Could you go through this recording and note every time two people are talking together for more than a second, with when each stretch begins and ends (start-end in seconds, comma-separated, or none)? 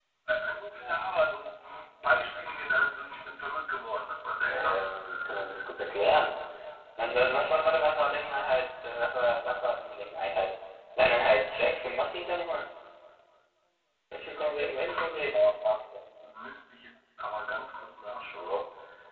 none